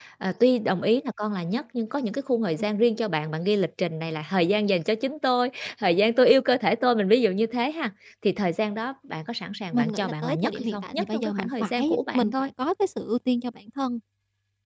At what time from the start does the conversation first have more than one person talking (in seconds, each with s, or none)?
9.7 s